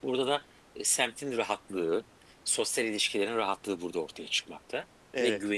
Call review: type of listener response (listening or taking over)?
listening